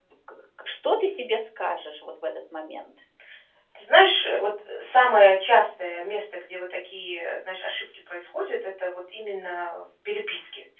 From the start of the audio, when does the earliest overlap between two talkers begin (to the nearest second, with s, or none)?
none